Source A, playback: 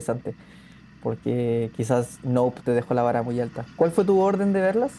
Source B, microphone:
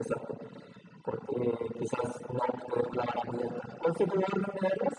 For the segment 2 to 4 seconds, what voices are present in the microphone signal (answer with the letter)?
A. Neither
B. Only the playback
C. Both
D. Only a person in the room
B